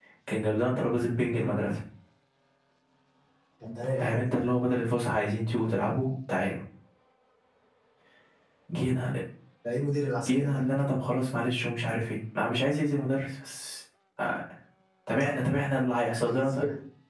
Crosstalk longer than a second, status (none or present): none